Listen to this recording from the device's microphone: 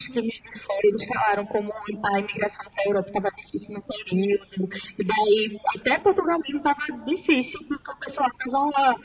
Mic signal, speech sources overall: echo only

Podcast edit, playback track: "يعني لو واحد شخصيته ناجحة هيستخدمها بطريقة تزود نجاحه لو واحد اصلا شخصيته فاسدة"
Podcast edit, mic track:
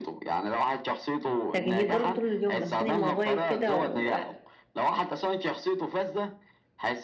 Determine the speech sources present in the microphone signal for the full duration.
both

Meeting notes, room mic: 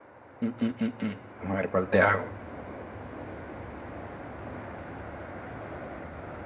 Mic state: user only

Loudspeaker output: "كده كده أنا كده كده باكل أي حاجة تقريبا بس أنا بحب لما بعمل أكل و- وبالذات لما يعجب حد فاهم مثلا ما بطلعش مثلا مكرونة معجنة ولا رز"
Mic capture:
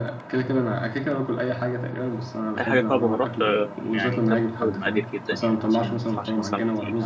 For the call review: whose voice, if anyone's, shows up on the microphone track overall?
both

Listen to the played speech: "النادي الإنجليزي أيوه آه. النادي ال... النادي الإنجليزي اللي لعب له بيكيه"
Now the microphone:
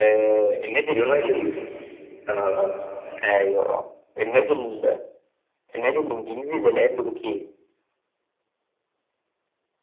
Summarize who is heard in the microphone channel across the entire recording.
both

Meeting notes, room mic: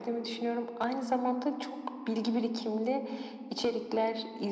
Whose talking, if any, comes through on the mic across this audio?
echo only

